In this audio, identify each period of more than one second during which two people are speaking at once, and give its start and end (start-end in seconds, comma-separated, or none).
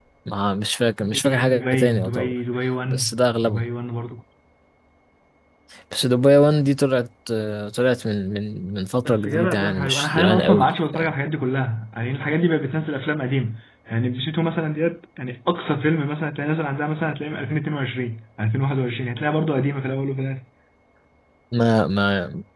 1.1-2.3, 9.0-11.2